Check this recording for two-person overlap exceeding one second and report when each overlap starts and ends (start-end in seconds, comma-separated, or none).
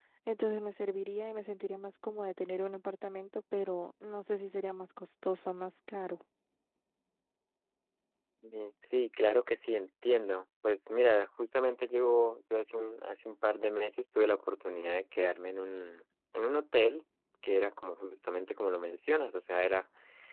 none